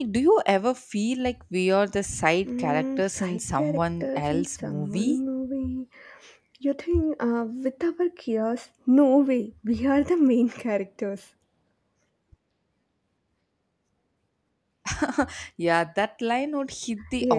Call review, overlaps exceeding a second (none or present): present